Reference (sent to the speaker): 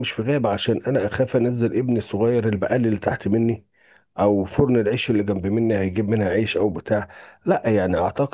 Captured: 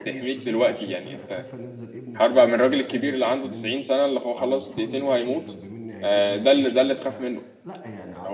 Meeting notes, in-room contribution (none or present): present